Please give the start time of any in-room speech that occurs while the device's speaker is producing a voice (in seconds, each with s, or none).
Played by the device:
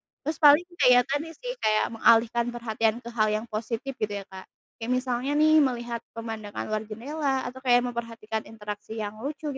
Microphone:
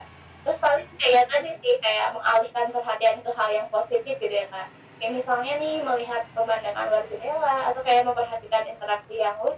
none